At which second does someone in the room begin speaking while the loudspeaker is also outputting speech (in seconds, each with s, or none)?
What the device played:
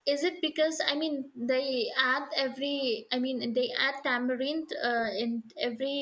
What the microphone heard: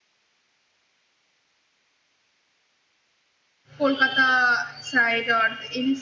3.8 s